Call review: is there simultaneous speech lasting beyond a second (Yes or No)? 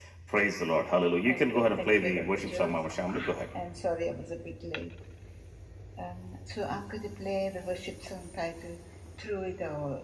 Yes